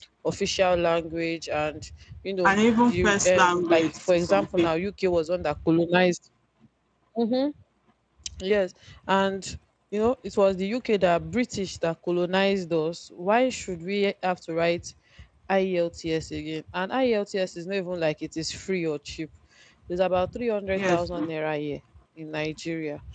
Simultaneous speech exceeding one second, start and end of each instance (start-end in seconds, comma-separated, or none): 2.4-4.7